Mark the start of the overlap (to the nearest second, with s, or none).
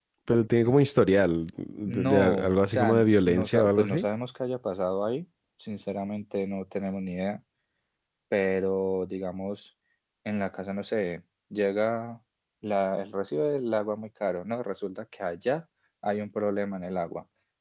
2 s